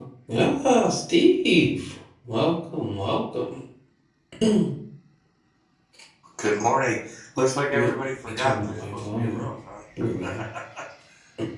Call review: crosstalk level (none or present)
present